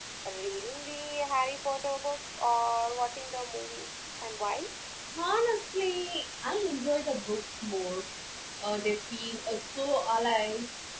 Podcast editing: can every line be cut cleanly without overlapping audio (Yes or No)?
Yes